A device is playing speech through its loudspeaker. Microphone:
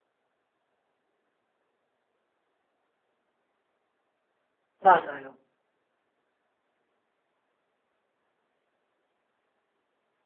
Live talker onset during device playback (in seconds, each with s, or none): 4.8 s